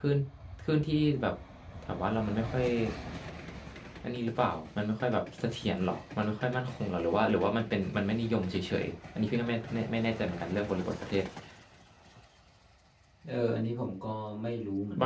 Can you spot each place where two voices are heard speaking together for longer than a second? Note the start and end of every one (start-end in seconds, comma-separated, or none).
none